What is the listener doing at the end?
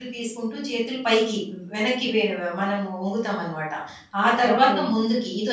listening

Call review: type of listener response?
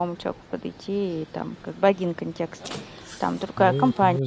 taking over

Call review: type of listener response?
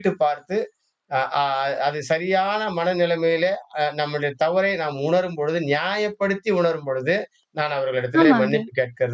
listening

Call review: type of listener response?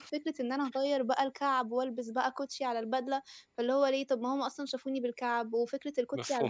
listening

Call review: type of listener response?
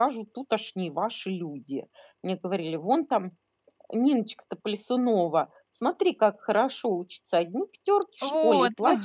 listening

